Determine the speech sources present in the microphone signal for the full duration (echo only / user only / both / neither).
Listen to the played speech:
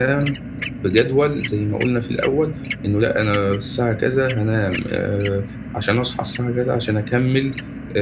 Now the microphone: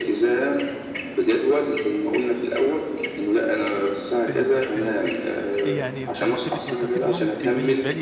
both